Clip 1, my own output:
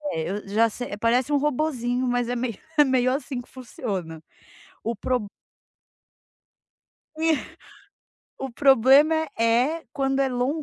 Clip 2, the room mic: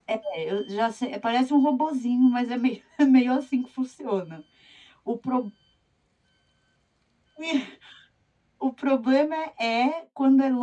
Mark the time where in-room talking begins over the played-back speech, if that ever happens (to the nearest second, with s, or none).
none